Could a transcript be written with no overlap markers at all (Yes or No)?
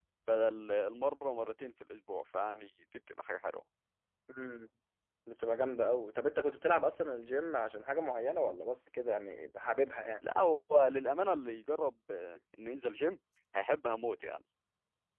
Yes